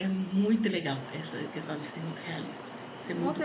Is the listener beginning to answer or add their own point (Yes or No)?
Yes